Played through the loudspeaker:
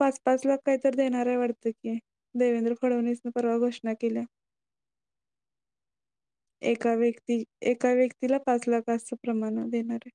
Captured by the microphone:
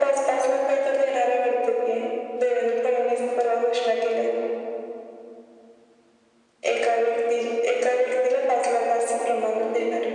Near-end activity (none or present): none